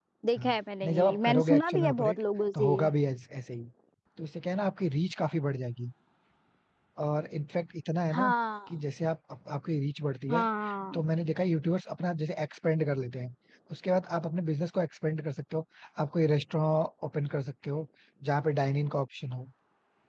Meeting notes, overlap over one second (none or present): present